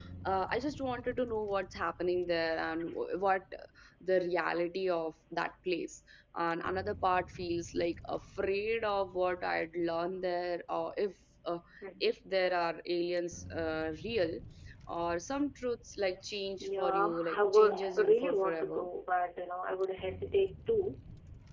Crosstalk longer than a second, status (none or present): present